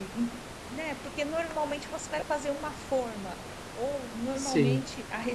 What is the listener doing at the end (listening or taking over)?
listening